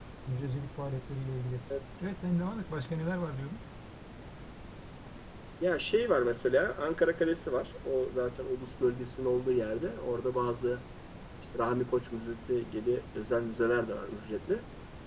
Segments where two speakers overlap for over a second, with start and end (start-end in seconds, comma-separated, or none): none